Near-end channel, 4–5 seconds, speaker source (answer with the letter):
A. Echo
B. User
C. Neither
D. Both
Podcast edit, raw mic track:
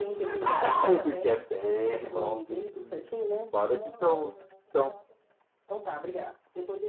A